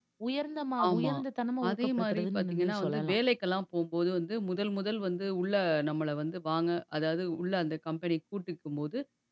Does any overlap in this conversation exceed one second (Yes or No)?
Yes